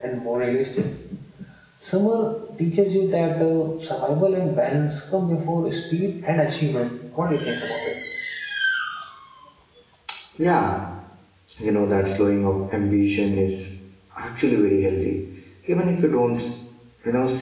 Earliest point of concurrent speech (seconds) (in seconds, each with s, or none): none